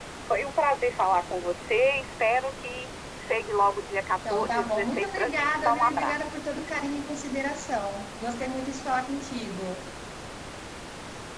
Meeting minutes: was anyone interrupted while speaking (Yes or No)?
Yes